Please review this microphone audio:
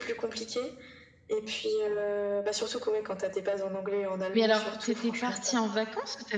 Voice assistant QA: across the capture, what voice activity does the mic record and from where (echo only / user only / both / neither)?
both